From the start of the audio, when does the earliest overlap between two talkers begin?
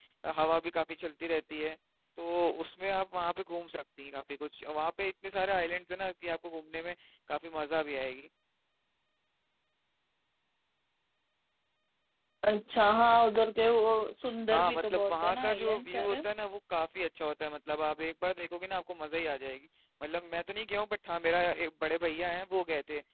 14.5 s

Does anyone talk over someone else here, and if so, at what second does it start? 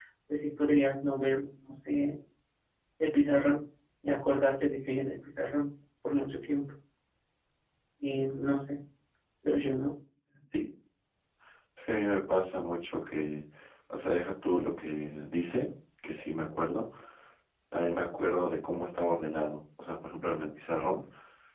none

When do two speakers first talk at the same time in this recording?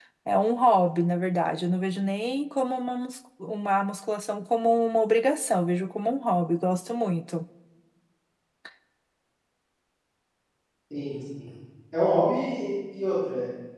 none

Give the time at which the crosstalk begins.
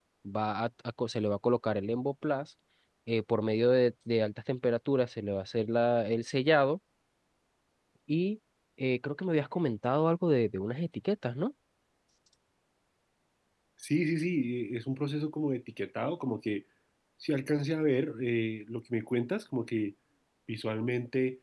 none

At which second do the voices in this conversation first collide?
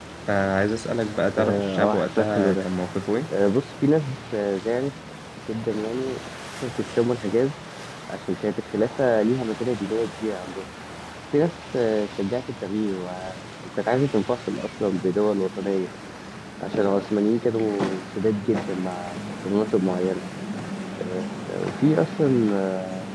1.4 s

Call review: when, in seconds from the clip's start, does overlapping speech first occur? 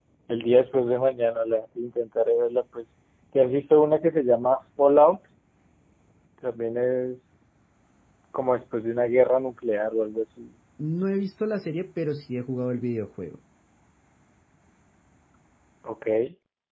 none

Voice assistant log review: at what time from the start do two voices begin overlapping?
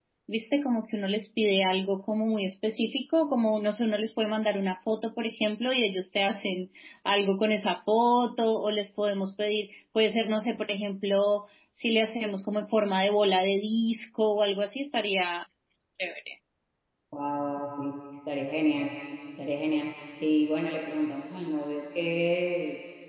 none

